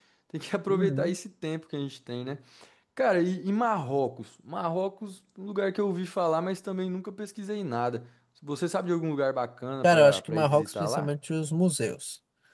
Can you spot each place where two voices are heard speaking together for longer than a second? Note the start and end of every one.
9.8-11.1

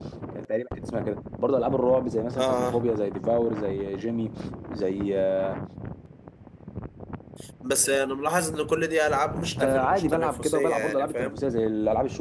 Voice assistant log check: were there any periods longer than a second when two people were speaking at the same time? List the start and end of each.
9.6-11.4

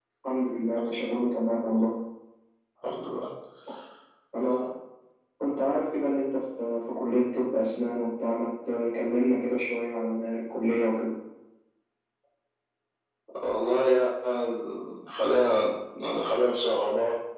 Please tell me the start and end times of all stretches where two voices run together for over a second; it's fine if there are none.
none

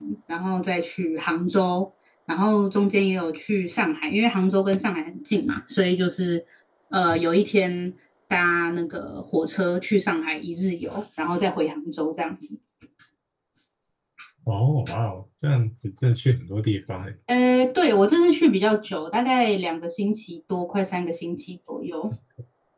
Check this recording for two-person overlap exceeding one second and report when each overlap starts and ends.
none

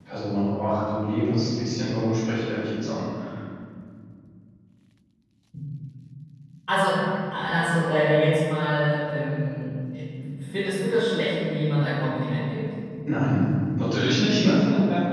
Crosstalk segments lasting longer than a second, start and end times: none

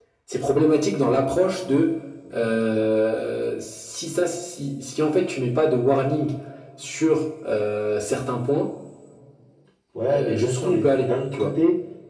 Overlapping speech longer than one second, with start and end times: 10.1-11.5

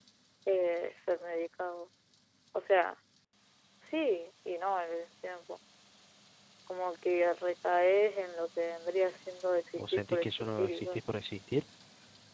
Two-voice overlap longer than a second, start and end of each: 9.8-11.0

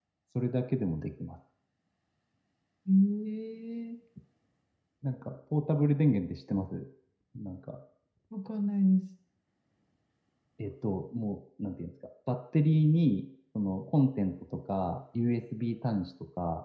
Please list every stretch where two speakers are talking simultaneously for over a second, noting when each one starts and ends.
none

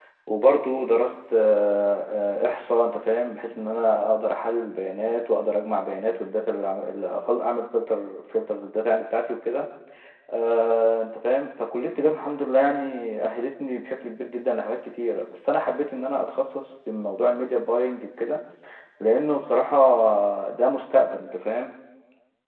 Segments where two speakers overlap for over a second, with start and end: none

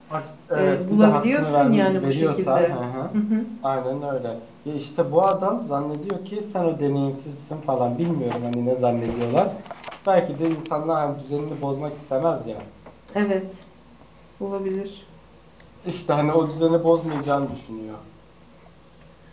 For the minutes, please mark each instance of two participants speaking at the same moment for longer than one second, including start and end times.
0.6-2.7

